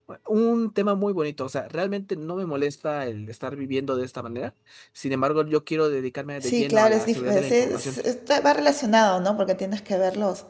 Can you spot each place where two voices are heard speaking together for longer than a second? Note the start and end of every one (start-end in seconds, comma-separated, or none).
6.4-8.0